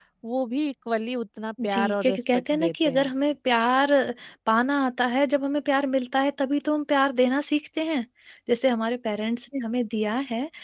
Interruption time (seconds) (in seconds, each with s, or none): 1.6 s